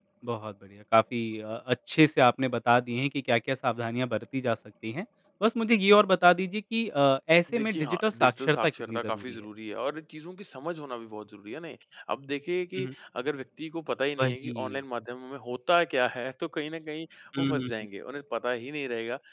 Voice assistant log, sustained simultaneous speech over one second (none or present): present